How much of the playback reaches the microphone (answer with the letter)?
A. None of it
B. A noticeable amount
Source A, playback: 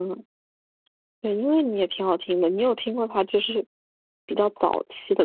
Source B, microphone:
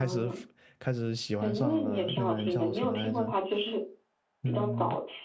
B